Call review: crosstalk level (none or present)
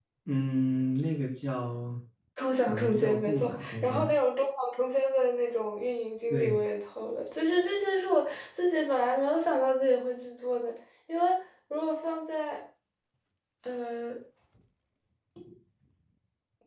present